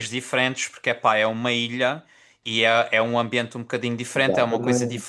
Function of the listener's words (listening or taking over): listening